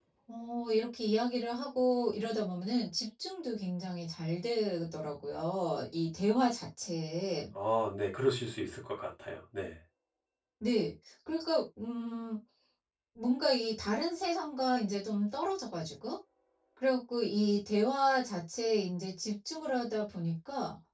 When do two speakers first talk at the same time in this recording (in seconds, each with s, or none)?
none